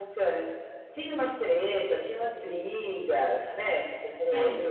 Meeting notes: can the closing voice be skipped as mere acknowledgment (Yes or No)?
No